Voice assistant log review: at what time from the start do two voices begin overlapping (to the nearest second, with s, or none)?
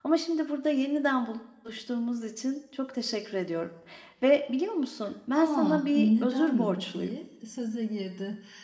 5 s